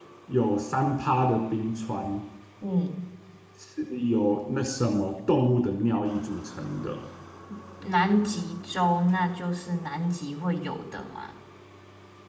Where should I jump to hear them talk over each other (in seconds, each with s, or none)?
none